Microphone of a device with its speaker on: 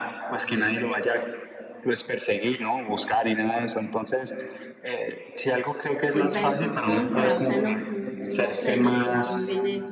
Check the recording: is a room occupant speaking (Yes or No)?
Yes